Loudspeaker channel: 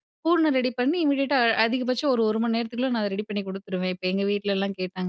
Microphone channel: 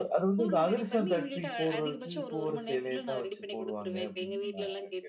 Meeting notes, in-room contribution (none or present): present